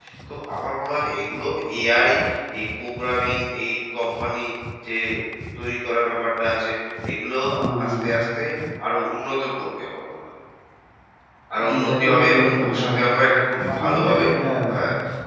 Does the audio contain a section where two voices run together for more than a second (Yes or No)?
Yes